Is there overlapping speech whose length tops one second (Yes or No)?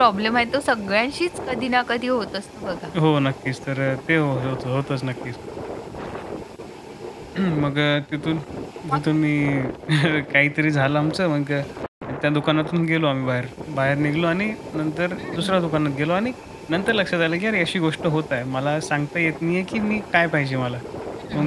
No